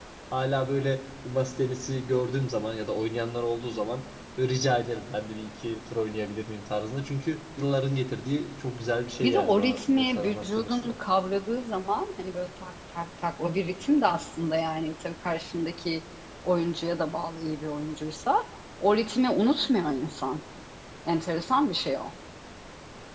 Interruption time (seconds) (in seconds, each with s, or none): 9.2 s